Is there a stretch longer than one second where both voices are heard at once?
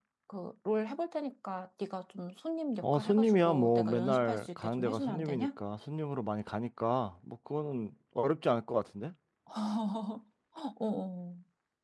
Yes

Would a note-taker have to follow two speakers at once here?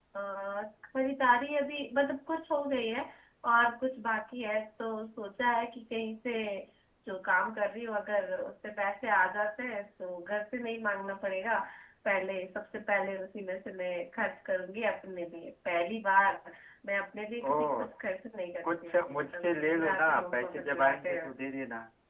Yes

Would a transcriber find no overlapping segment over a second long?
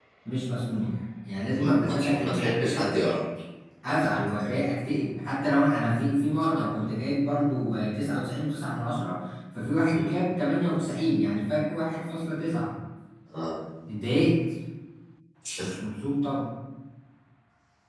No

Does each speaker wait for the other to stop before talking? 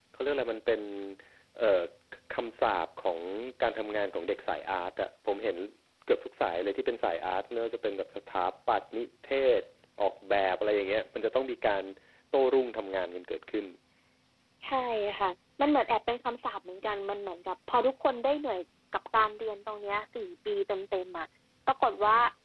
Yes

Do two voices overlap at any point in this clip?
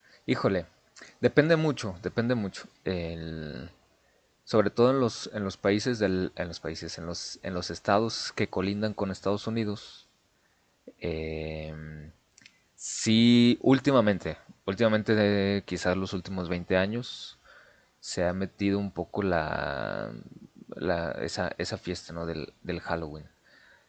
No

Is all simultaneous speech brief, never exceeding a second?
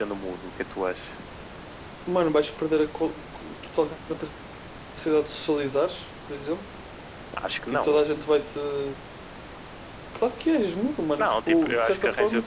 No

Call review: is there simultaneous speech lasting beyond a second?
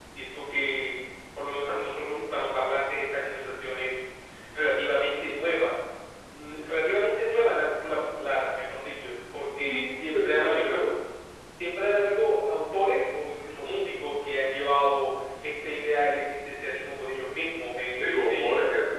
Yes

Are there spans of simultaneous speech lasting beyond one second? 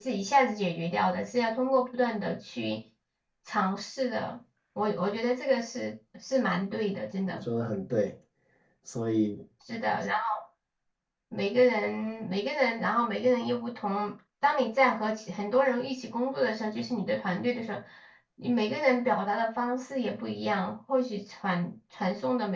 No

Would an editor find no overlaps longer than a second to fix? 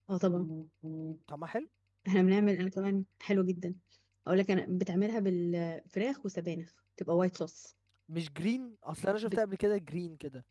Yes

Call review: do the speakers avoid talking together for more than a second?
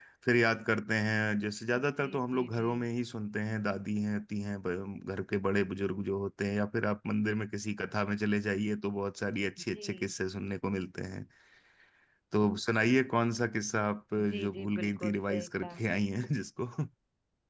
No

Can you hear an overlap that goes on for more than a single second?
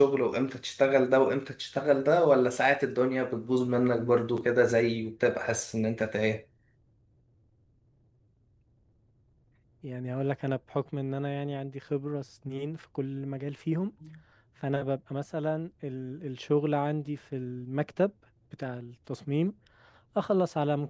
No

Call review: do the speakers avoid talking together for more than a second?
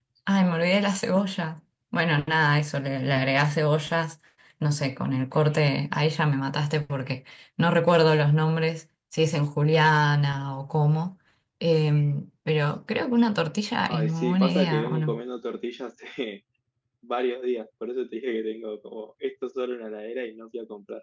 No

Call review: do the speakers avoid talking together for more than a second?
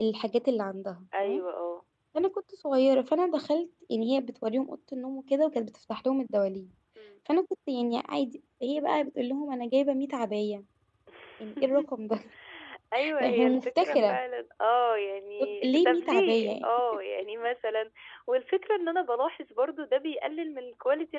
No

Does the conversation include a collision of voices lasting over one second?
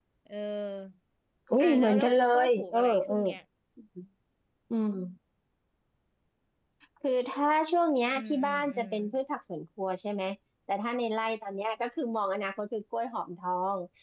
Yes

